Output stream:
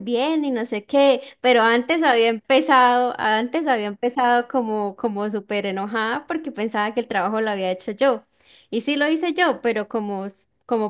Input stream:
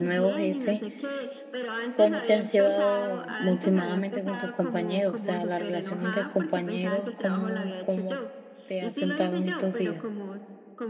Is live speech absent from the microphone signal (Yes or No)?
No